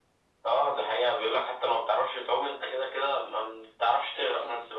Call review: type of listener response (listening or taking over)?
taking over